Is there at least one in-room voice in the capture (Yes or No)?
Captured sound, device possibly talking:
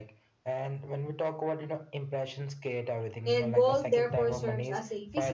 Yes